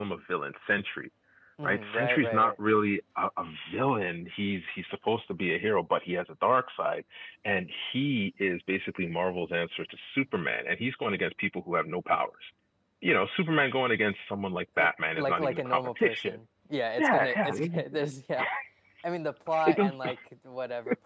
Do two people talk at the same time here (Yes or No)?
Yes